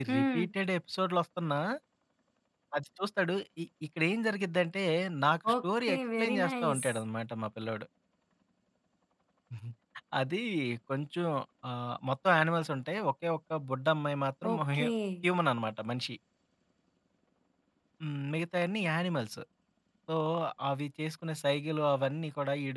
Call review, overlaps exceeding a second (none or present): present